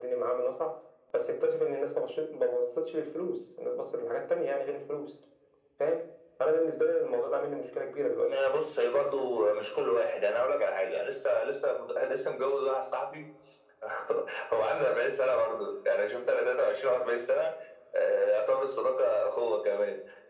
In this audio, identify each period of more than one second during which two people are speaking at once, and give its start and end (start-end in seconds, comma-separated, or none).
none